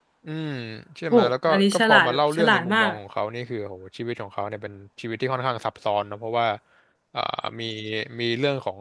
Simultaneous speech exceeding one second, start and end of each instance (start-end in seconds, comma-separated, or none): 1.1-2.8